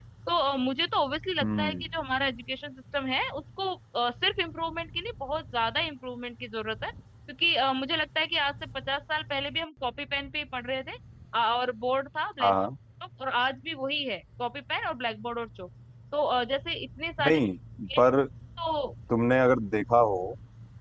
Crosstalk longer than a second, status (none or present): none